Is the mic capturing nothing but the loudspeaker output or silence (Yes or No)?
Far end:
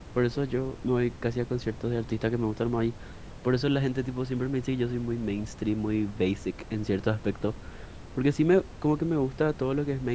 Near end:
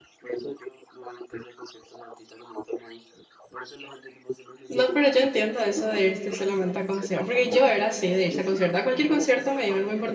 No